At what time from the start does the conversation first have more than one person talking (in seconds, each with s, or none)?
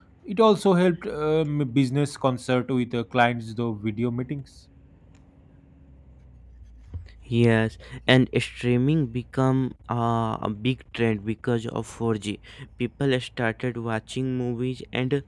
none